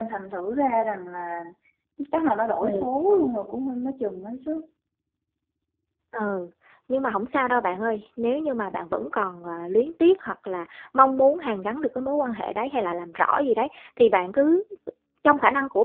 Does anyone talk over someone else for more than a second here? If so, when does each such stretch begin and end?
none

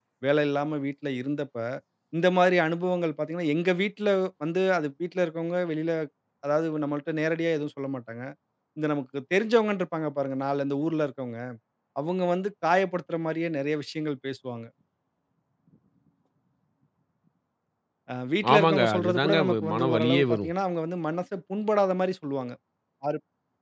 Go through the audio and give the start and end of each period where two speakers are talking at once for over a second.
18.5-20.5

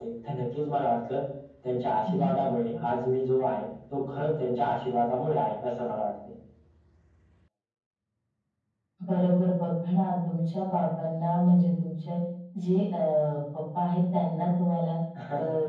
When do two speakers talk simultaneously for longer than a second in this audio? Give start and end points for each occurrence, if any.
none

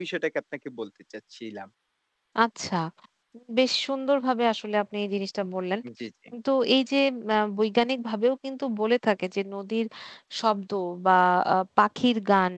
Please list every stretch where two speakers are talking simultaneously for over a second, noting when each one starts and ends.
none

